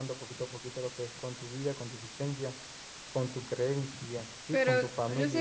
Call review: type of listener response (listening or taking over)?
taking over